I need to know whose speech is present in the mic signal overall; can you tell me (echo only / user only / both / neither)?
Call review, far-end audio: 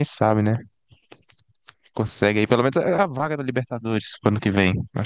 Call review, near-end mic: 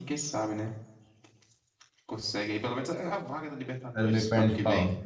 both